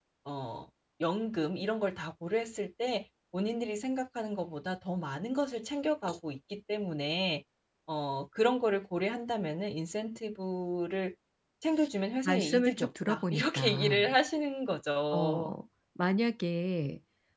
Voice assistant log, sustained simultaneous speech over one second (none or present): present